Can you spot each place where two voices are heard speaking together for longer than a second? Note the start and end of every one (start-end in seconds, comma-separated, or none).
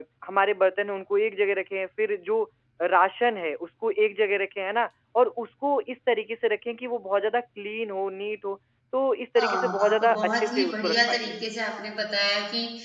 9.4-11.3